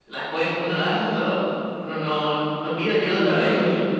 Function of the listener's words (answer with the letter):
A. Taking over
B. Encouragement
A